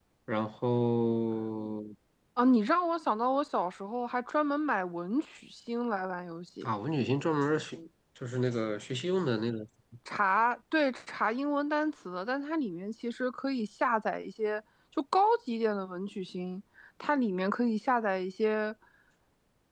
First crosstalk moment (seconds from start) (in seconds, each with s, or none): none